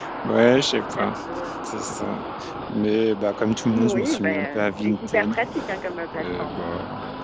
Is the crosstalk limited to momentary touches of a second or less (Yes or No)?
No